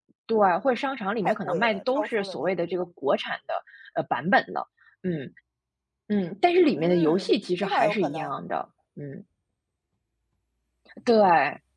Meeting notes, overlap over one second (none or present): present